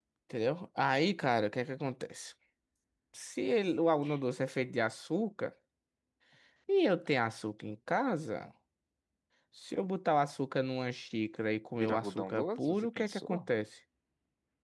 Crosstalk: present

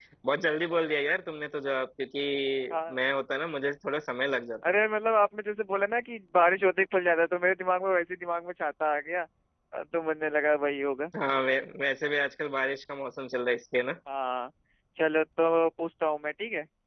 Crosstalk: none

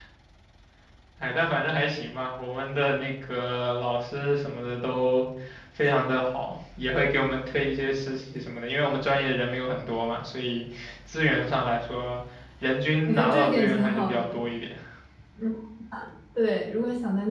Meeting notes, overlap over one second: present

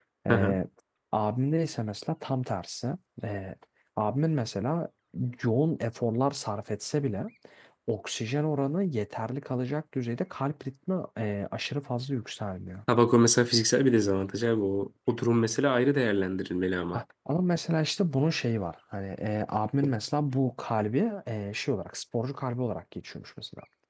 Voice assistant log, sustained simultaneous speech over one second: none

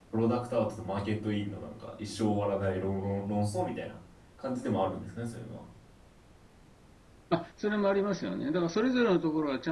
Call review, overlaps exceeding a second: none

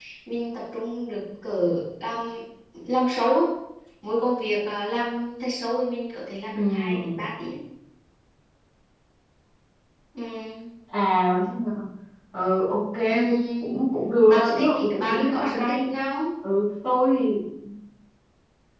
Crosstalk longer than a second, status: present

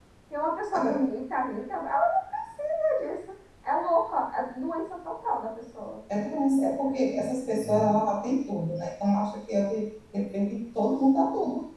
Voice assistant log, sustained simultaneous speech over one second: none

